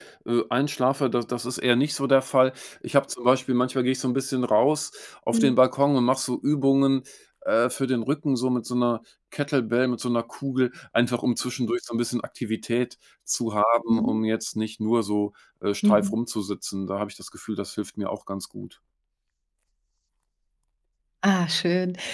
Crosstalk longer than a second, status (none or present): none